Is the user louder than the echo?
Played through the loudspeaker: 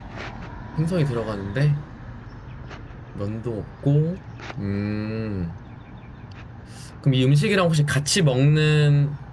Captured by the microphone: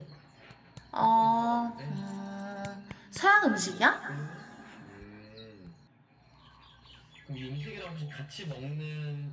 Yes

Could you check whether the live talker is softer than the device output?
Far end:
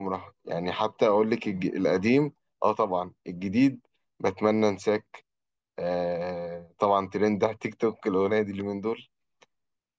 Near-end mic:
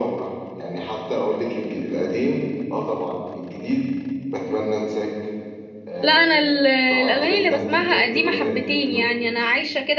No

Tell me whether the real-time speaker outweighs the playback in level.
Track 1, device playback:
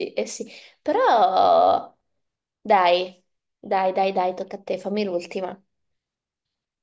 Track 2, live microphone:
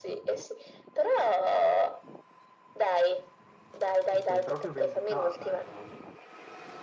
No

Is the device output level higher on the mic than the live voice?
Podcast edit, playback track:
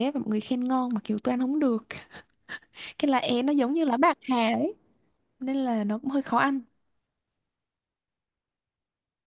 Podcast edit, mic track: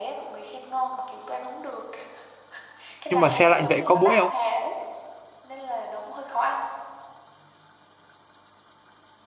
No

